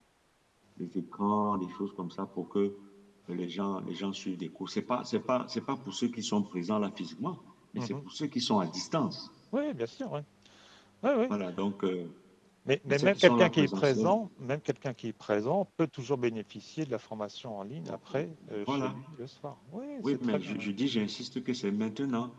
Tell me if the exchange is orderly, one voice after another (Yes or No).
No